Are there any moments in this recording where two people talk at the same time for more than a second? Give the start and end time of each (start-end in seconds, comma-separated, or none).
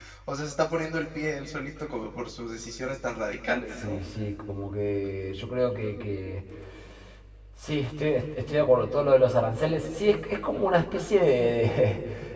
none